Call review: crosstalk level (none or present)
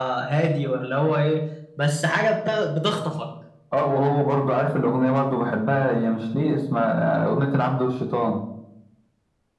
none